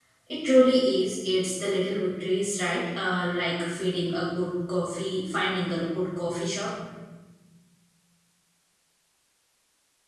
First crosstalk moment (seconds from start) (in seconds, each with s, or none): none